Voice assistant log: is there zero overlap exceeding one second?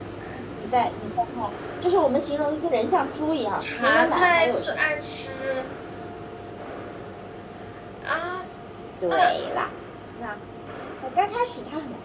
No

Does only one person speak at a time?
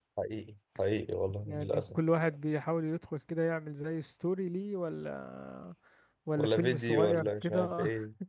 No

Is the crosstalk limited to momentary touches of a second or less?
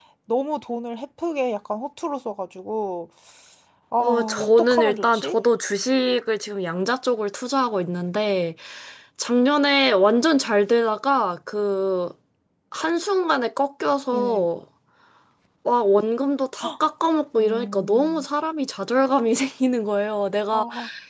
No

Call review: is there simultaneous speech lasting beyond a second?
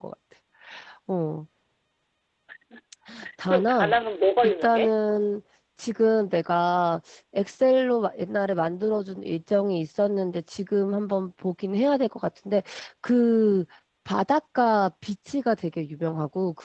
No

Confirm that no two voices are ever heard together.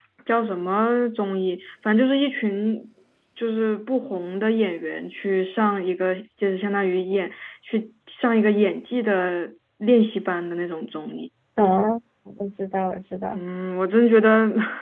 Yes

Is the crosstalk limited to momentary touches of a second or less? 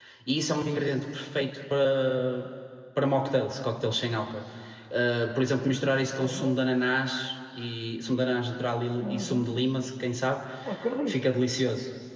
Yes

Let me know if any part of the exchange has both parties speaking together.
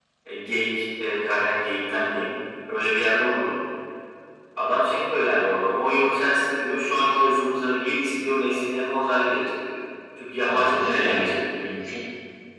Yes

